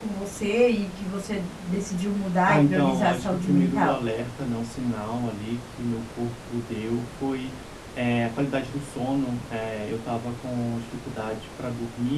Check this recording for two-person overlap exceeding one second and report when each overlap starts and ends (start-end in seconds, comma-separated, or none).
2.5-4.0